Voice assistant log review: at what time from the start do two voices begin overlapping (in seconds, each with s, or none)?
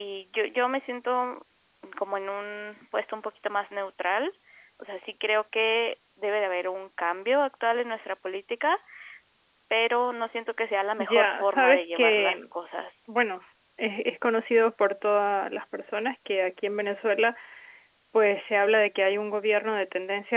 11.0 s